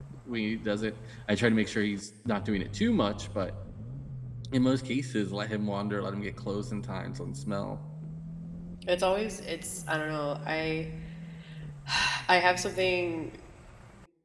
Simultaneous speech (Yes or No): No